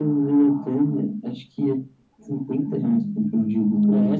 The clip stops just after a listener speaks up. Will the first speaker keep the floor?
No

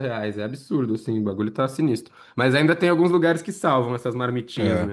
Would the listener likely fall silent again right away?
No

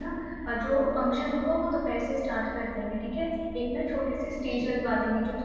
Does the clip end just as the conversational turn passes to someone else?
No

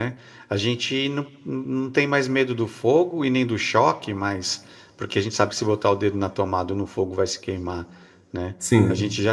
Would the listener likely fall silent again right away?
Yes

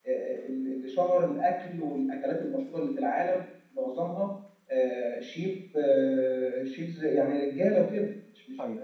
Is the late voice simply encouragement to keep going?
No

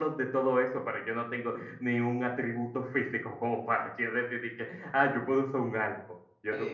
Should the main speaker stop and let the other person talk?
Yes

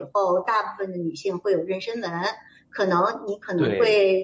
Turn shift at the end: No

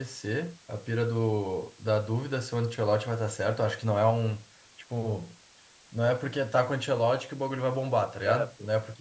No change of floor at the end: Yes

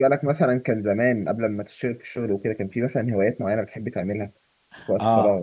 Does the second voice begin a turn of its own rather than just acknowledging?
Yes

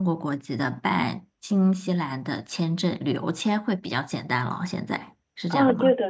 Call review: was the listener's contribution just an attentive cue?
No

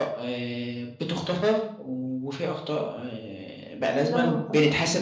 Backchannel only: Yes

